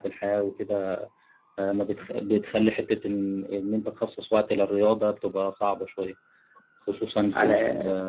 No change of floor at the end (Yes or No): Yes